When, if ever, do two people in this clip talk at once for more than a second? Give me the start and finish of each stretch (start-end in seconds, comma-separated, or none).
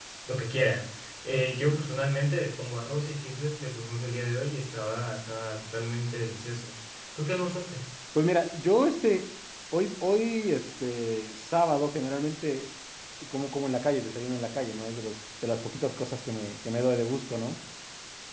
none